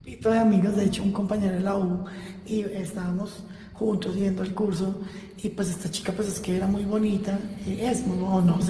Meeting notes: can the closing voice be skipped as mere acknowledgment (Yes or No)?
Yes